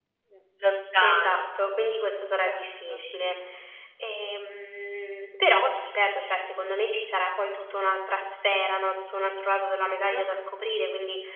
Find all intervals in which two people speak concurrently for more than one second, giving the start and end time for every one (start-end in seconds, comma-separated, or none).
none